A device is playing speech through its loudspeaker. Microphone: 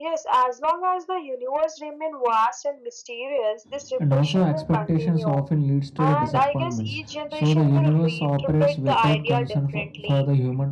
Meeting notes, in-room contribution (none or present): present